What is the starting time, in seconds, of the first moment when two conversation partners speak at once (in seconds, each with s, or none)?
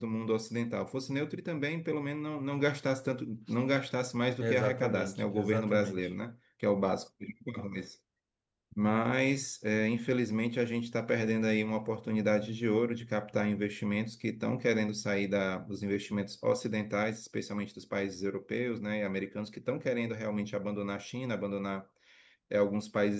4.4 s